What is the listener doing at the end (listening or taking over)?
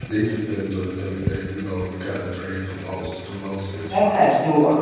taking over